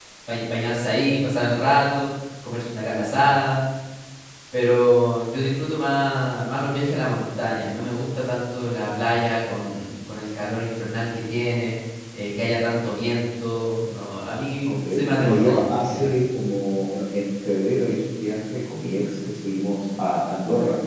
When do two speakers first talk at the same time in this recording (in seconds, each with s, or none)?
14.6 s